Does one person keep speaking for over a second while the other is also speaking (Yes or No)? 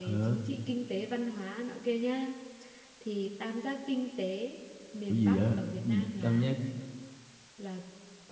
Yes